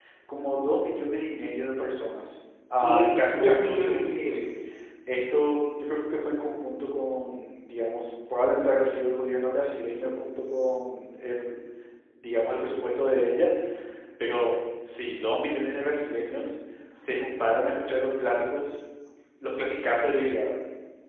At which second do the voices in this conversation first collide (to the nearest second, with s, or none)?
3 s